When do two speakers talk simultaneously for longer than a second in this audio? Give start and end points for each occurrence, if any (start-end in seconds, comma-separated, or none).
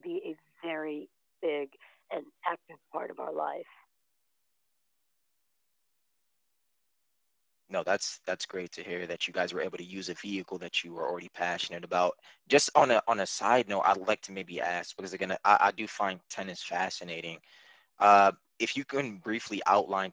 none